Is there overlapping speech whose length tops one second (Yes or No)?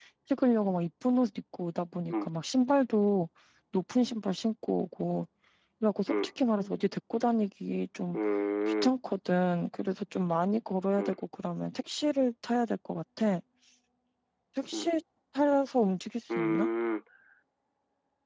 No